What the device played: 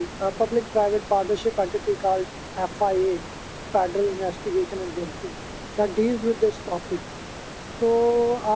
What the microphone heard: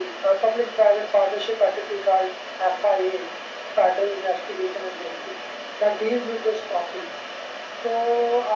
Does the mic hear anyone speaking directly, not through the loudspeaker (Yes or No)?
No